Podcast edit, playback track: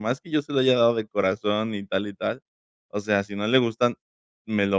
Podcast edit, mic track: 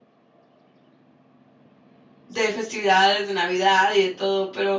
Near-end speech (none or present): present